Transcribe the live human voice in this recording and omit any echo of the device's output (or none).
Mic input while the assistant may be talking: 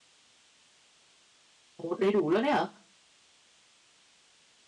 Ồ! Đầy đủ luôn ấy hả?